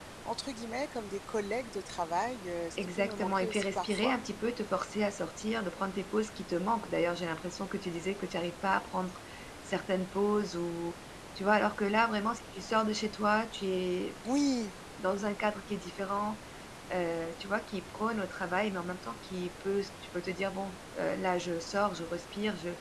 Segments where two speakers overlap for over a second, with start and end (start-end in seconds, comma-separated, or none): 2.8-4.2